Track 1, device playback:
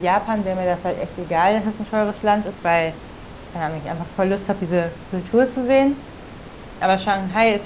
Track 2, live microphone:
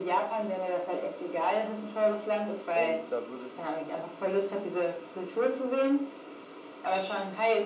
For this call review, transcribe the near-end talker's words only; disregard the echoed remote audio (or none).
Und da würde sich